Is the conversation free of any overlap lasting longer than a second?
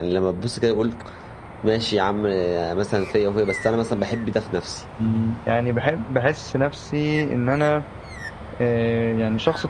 Yes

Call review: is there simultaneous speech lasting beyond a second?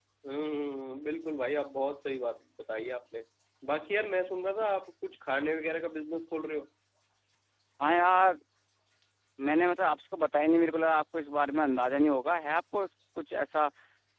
No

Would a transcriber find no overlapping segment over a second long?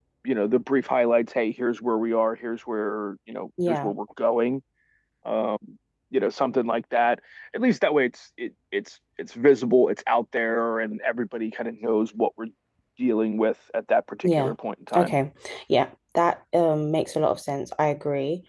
Yes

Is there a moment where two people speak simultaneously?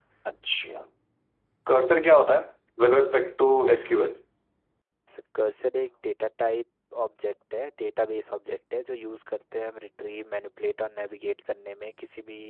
No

